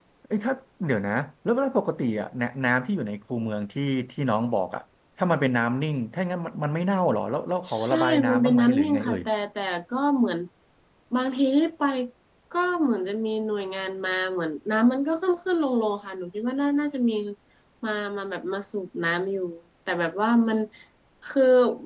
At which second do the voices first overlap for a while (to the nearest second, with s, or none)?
8 s